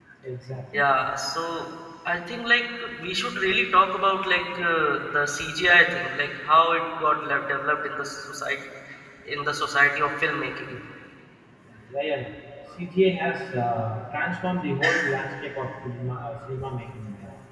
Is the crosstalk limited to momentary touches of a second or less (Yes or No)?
Yes